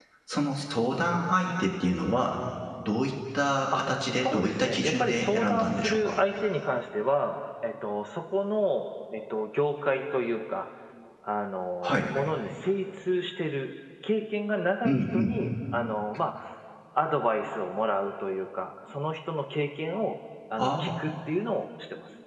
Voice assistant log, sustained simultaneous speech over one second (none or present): present